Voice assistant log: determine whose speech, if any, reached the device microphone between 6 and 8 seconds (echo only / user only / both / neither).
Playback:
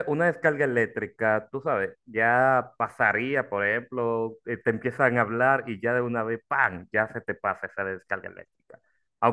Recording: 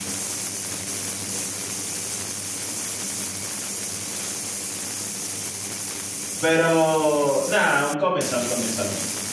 user only